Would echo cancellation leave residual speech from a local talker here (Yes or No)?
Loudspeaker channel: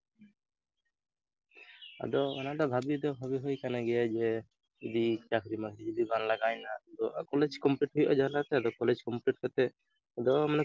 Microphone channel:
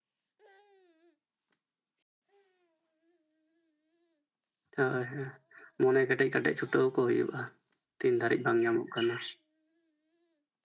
Yes